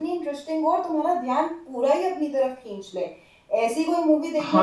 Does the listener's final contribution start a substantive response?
Yes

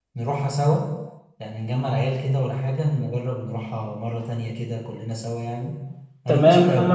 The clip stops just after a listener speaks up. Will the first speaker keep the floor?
No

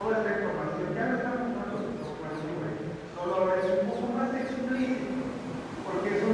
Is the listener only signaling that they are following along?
Yes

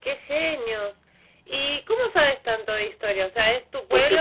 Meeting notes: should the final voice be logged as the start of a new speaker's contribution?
Yes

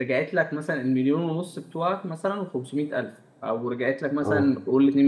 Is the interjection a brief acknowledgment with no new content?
Yes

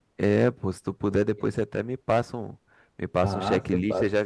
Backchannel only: No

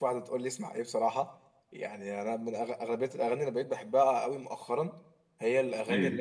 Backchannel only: Yes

